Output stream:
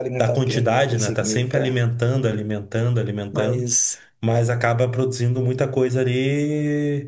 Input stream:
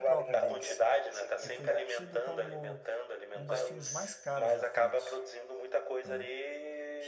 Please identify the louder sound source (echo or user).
echo